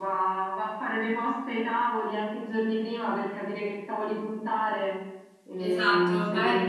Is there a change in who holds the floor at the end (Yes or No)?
Yes